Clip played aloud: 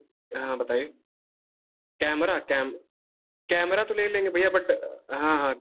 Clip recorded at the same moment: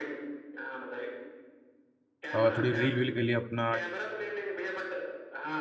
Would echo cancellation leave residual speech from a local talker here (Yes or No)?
Yes